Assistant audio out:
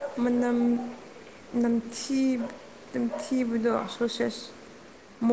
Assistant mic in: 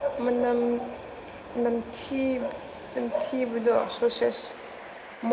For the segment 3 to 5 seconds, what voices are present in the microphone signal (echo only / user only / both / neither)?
echo only